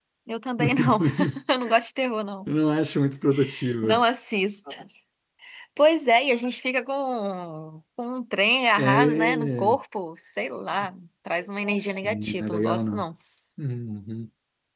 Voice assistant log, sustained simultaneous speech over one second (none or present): present